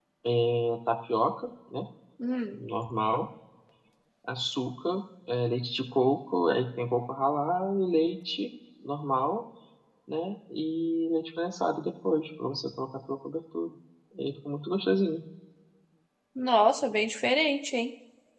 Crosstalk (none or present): none